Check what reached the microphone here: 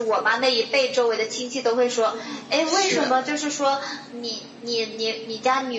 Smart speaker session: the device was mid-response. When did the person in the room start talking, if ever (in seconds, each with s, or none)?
1.8 s